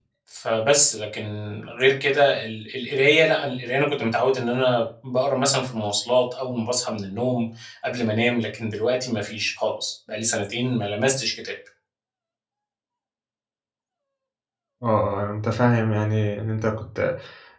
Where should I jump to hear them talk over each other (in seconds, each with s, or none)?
none